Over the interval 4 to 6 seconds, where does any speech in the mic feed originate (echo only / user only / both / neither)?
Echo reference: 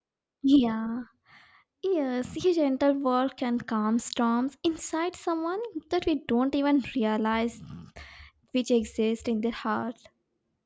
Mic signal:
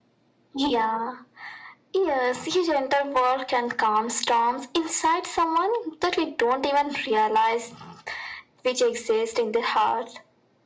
echo only